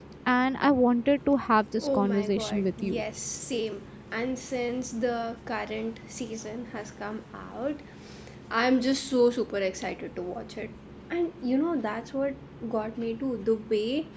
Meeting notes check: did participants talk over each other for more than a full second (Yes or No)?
Yes